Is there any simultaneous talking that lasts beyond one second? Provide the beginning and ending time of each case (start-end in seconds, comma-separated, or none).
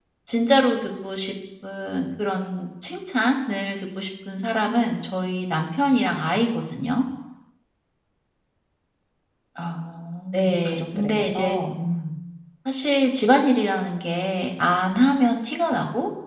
10.3-11.6